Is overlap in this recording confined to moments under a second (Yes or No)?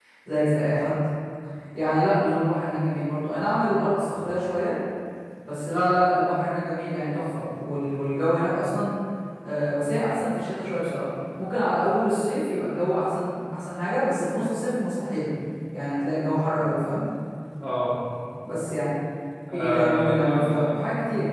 No